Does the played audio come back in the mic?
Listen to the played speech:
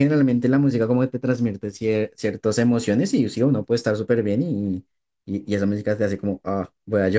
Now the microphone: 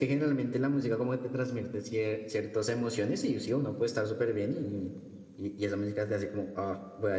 Yes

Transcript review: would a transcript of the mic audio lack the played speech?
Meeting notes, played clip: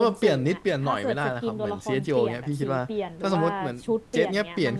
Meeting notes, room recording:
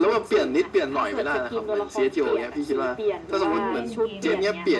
No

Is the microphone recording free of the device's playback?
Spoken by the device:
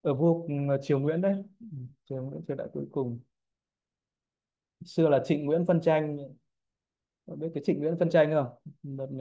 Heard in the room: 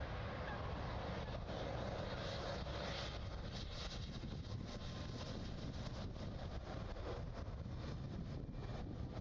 Yes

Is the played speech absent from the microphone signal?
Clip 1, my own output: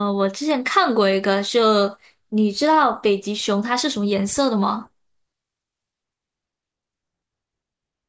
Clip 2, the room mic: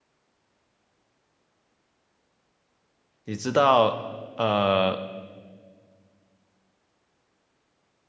Yes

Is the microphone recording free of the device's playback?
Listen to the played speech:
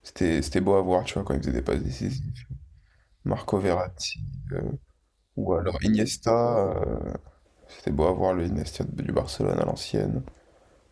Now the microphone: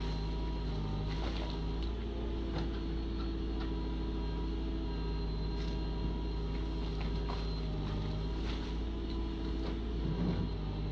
Yes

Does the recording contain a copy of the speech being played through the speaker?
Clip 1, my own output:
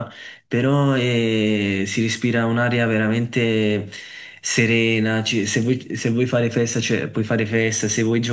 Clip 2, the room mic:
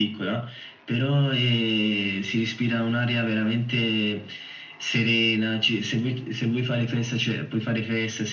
Yes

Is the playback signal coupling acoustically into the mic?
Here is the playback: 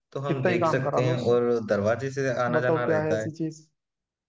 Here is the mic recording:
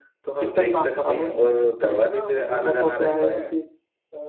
Yes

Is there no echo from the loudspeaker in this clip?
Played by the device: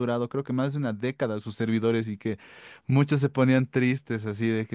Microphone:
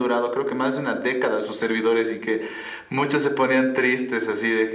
No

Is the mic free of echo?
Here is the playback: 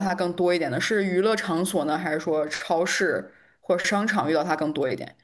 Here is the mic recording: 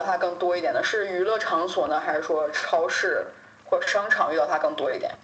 No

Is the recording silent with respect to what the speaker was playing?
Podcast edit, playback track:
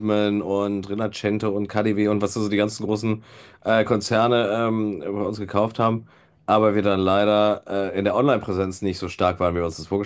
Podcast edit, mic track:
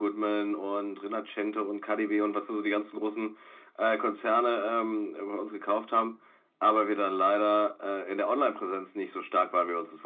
No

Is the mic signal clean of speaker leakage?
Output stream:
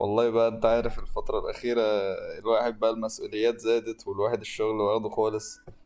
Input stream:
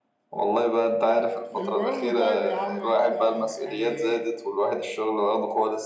No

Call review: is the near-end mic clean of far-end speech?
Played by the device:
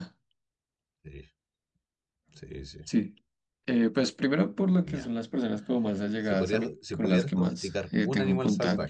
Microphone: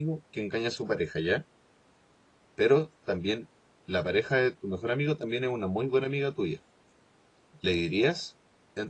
Yes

